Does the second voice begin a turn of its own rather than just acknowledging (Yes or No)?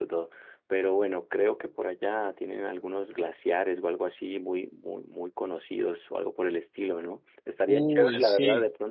No